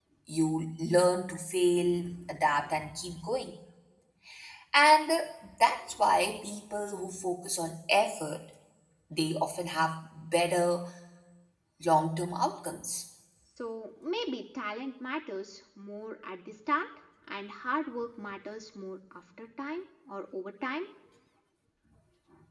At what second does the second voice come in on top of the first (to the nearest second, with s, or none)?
none